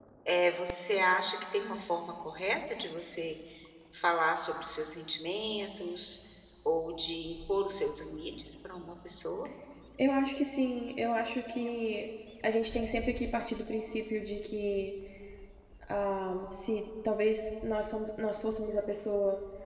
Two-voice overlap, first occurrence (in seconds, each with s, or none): none